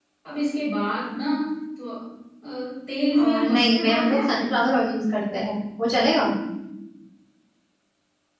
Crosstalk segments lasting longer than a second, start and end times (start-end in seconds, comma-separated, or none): 3.2-4.6